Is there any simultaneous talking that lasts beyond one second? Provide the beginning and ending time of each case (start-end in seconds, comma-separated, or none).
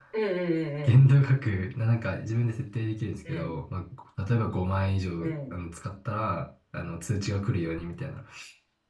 none